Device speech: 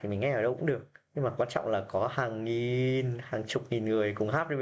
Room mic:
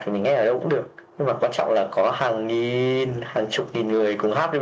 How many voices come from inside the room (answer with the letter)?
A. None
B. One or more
A